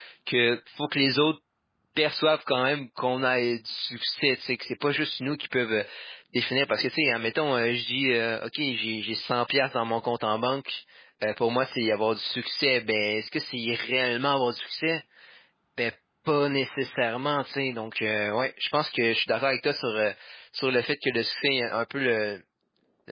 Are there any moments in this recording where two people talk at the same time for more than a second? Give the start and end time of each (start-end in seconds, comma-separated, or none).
none